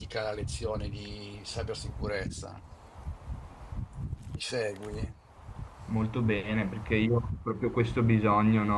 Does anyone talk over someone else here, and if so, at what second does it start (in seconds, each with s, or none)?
none